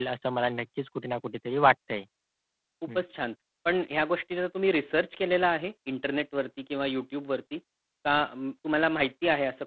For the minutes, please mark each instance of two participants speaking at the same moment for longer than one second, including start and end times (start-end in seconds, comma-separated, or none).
none